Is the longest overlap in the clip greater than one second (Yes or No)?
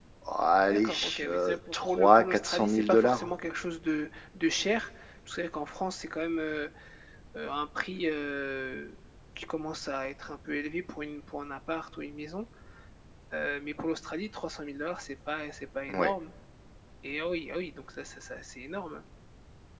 Yes